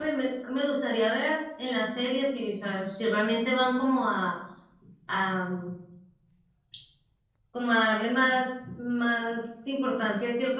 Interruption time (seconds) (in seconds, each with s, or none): none